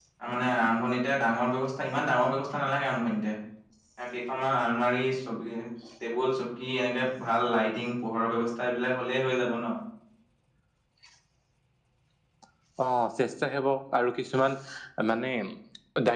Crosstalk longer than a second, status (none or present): none